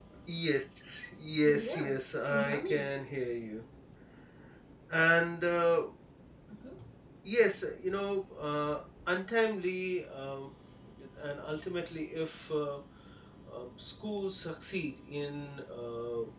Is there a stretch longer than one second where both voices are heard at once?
Yes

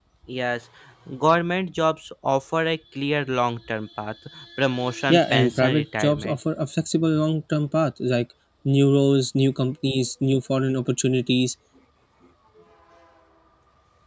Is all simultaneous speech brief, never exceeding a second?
No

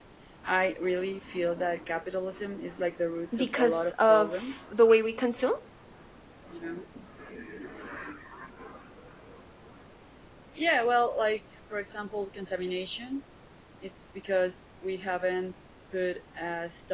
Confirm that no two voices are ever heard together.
No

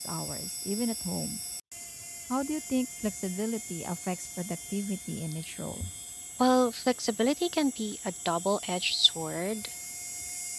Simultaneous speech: No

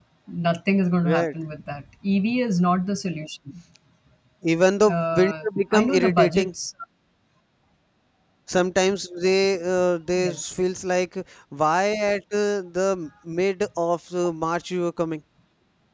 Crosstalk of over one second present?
Yes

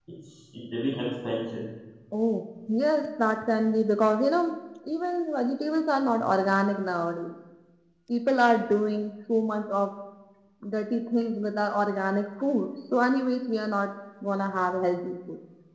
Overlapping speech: No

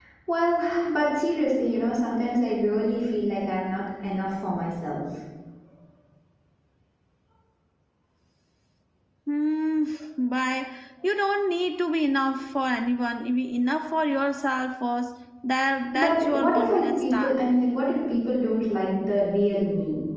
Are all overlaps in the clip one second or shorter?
No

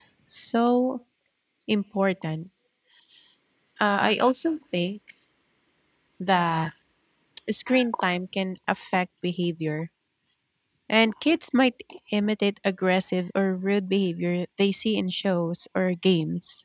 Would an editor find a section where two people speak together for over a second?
No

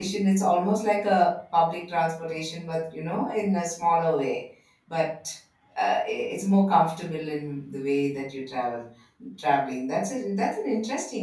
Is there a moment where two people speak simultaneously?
No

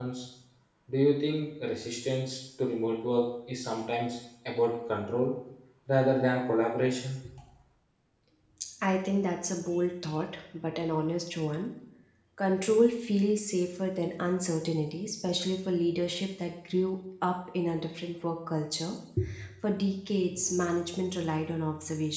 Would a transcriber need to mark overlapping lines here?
No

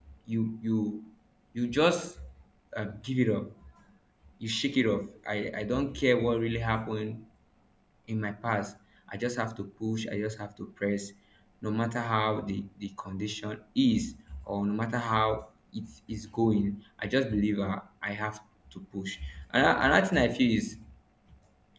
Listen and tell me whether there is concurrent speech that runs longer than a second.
No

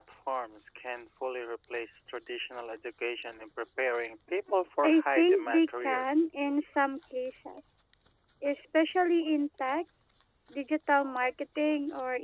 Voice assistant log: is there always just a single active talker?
No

